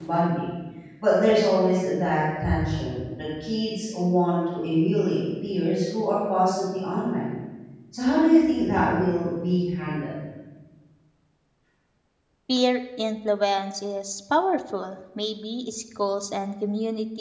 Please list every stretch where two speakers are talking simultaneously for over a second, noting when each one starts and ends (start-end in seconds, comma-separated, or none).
none